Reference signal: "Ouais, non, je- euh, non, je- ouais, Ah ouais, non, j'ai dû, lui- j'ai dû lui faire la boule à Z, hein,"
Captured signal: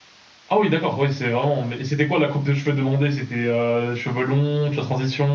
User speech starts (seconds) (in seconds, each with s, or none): 0.5 s